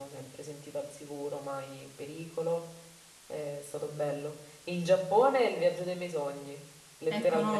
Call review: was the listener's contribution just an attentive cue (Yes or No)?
No